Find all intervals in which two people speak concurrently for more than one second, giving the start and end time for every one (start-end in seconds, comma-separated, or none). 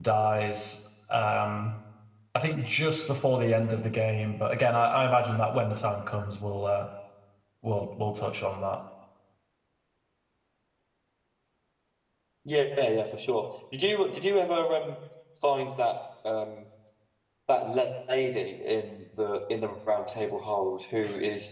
none